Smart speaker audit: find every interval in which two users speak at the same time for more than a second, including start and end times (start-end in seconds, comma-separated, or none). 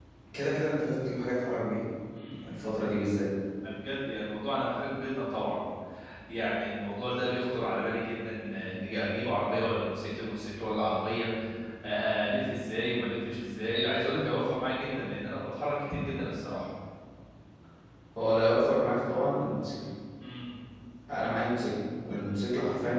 none